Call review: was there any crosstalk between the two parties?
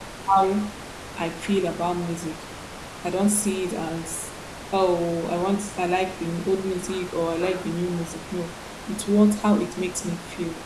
No

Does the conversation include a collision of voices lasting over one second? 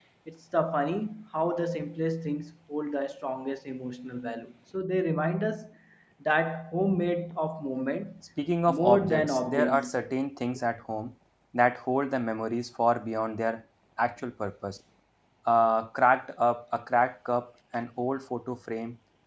Yes, from 8.7 s

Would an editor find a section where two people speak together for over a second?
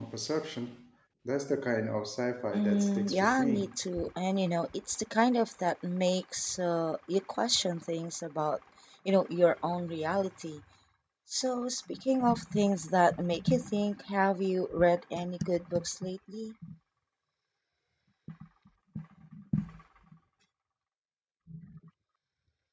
Yes, from 2.5 s

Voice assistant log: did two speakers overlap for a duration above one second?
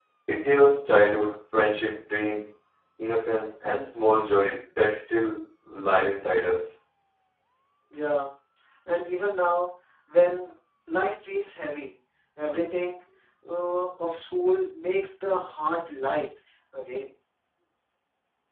No

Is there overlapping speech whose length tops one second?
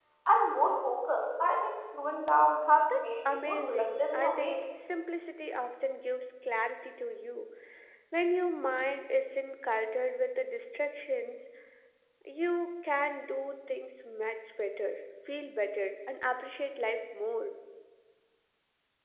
Yes, from 2.9 s

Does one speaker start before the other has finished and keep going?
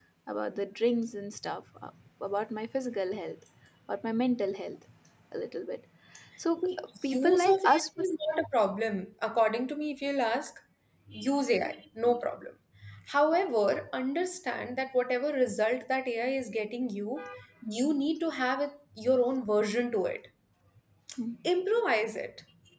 Yes, from 6.6 s

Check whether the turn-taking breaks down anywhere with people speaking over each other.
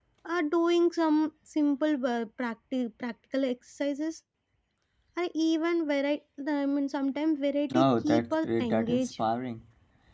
Yes, from 7.7 s

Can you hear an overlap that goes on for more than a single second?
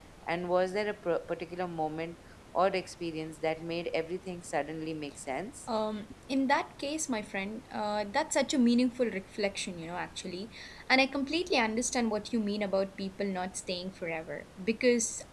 No

